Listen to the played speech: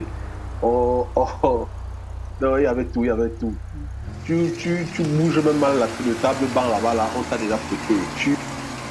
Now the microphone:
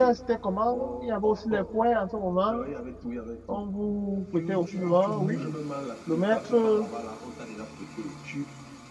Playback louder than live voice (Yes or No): No